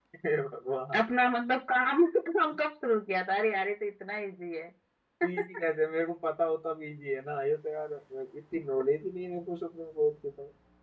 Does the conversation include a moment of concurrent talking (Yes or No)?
No